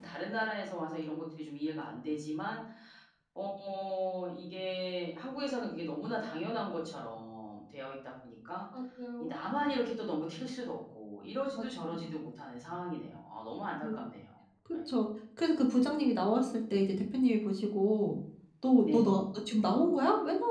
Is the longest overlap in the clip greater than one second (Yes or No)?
No